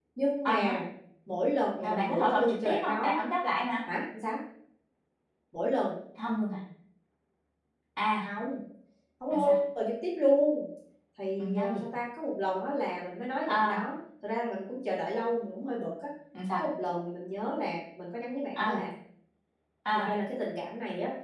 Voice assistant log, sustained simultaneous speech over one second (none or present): present